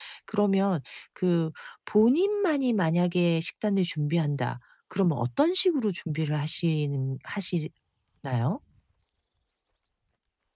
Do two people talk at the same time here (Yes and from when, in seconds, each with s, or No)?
No